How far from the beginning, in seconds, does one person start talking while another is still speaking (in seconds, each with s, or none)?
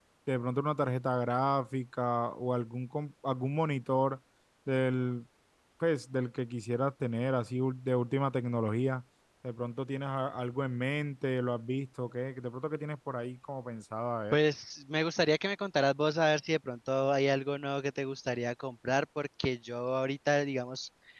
none